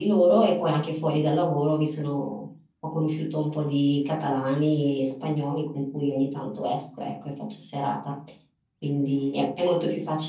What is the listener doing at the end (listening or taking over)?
listening